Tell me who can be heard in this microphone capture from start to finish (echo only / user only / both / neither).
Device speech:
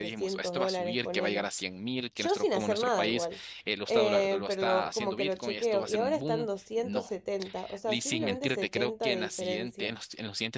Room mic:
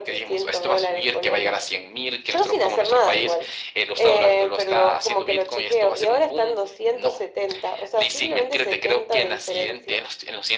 echo only